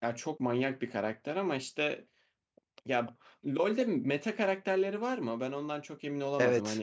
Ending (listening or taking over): taking over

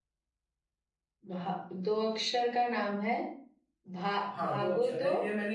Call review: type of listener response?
taking over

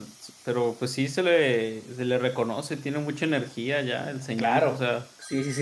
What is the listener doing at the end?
taking over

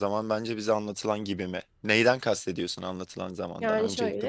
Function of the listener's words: taking over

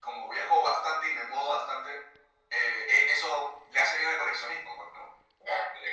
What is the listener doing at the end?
taking over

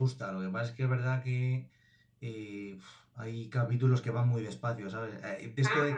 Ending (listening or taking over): listening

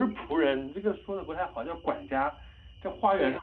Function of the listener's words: listening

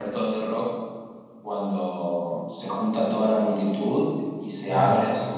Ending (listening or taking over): listening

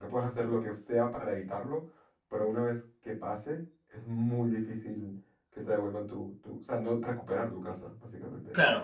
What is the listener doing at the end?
taking over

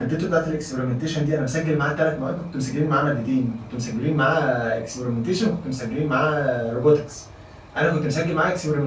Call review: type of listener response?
listening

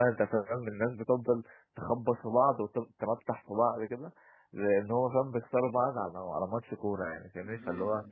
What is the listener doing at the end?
listening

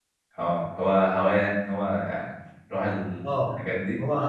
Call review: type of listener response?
taking over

